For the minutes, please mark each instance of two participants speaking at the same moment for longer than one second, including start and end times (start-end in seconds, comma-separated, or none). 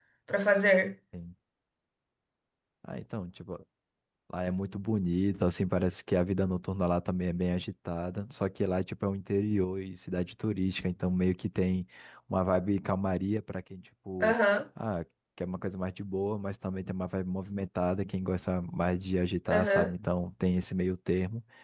none